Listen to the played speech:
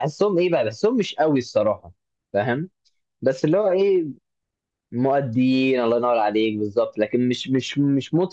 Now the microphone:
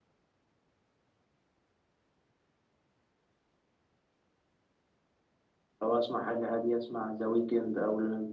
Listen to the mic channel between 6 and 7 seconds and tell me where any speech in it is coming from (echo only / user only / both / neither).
user only